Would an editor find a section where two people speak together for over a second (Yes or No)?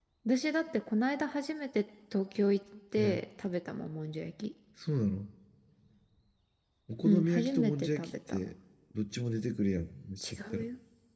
Yes